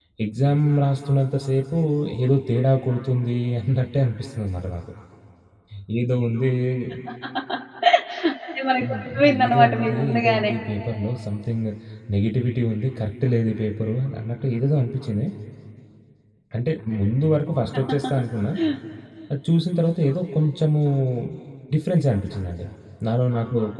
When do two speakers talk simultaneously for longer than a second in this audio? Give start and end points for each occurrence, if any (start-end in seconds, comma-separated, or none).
8.9-10.5